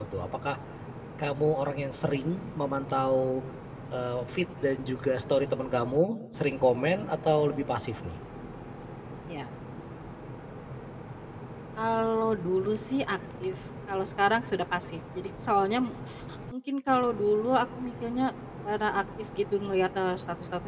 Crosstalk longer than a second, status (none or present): none